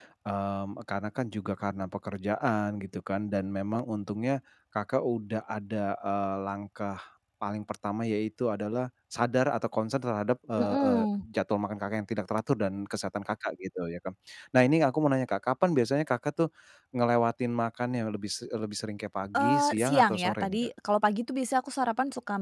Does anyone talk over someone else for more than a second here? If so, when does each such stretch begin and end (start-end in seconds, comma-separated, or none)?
19.4-20.7